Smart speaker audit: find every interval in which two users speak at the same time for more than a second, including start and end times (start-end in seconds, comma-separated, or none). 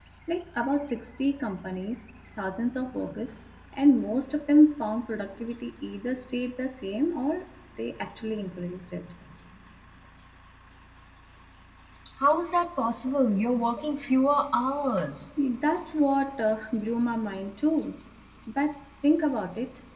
none